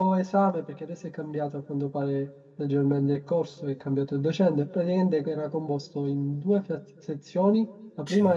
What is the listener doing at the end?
listening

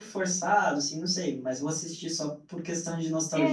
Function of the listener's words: taking over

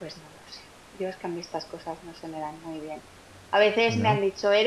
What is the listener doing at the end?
listening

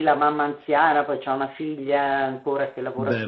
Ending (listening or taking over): listening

